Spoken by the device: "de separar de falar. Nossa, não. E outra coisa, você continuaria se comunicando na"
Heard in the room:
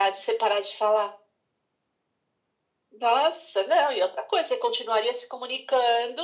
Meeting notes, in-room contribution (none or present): none